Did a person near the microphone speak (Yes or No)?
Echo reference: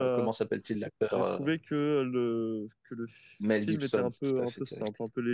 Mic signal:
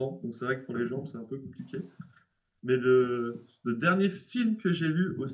Yes